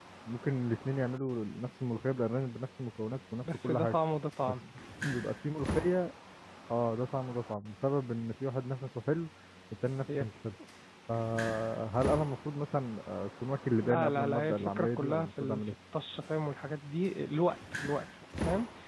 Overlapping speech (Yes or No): Yes